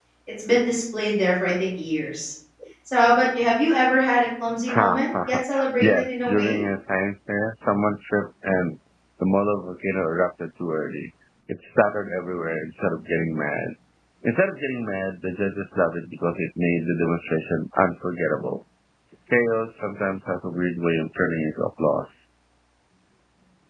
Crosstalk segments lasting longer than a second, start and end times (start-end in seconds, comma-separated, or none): 4.7-6.6